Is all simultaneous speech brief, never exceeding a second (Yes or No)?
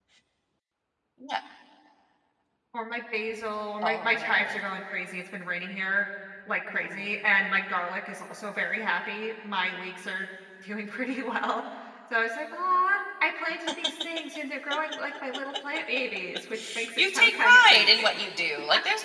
No